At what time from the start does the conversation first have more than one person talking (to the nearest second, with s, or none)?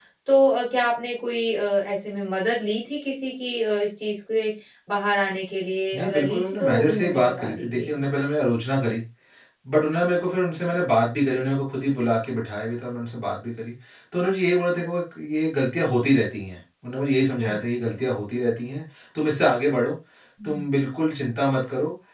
6 s